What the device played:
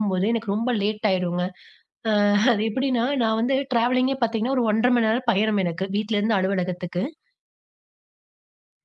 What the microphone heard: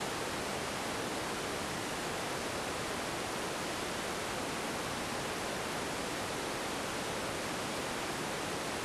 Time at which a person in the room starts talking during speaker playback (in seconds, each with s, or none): none